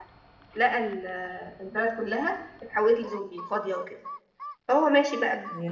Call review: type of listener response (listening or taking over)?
listening